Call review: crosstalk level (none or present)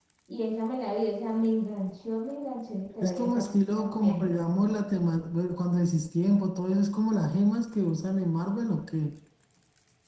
present